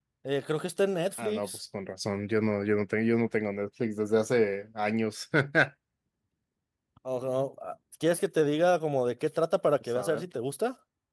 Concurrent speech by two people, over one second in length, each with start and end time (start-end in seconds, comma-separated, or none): none